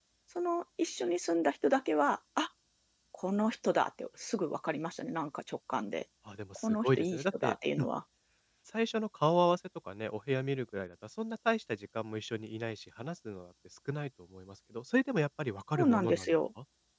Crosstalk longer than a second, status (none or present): present